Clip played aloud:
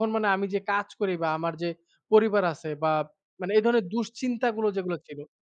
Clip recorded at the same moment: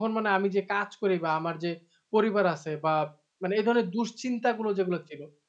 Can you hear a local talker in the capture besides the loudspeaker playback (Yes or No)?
No